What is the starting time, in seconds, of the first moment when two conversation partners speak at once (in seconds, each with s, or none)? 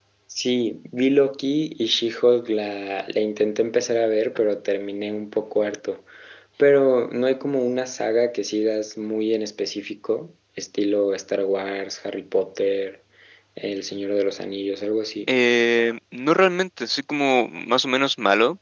none